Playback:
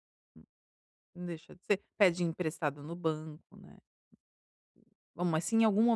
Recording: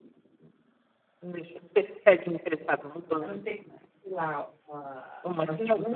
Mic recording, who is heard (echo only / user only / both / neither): both